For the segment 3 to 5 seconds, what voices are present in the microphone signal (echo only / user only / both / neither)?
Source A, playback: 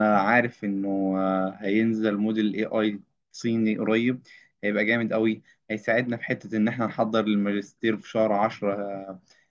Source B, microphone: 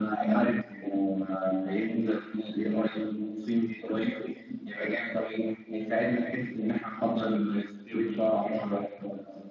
echo only